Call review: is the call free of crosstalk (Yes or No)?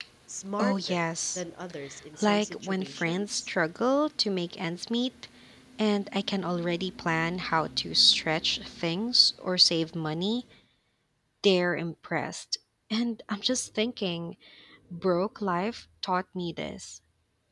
No